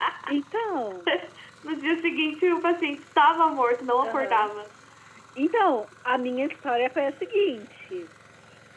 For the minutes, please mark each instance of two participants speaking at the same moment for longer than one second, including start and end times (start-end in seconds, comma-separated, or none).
none